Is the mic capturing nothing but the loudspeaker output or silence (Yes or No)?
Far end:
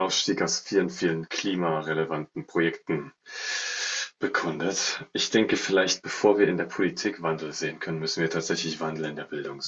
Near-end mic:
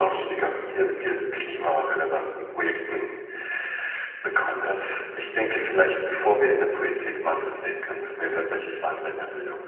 Yes